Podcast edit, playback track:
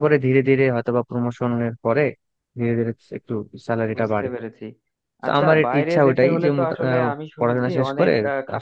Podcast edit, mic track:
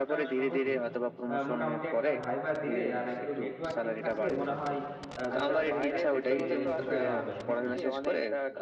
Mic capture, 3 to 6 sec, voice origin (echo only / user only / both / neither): both